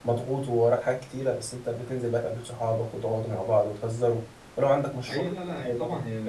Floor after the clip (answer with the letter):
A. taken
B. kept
A